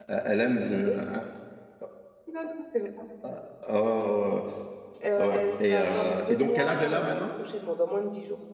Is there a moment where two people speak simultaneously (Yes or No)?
Yes